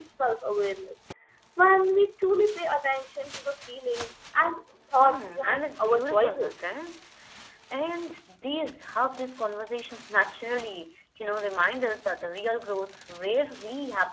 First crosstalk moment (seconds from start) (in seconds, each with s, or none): 5.0 s